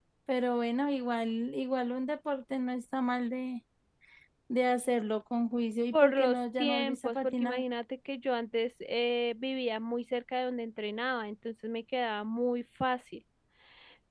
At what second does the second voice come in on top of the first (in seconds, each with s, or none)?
5.9 s